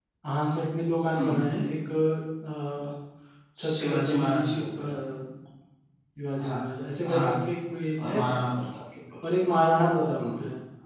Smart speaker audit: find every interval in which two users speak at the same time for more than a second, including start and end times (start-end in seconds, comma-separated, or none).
3.7-4.9